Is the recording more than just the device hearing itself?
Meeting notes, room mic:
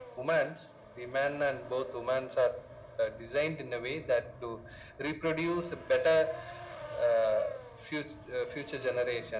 No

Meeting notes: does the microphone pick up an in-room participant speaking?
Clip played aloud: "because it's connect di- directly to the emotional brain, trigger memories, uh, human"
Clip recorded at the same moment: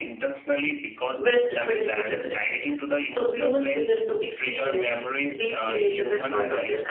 Yes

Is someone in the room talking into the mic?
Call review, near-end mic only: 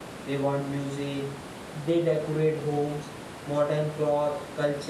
Yes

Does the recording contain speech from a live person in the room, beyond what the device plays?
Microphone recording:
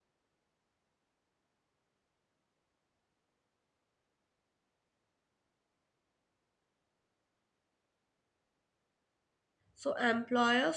Yes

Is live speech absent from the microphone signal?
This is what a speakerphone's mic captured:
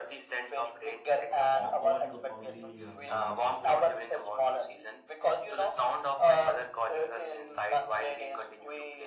No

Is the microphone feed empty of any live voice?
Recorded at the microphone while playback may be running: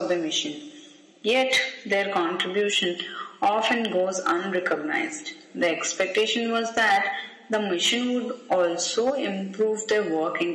Yes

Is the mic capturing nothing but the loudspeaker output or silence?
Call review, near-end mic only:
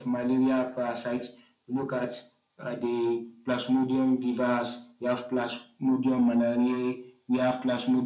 Yes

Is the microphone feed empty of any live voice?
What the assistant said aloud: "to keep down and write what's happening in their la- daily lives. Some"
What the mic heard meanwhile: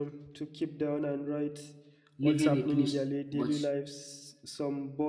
No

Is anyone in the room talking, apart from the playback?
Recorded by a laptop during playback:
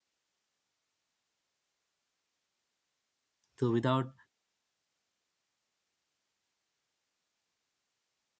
Yes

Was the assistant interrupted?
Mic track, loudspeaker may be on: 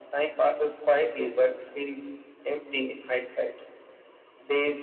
No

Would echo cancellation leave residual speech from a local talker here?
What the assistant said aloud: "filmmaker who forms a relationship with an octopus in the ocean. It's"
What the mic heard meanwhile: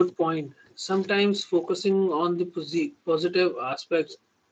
Yes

